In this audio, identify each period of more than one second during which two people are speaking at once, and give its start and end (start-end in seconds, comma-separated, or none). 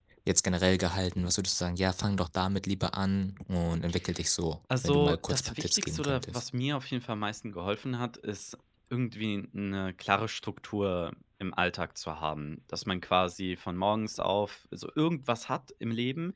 4.8-6.4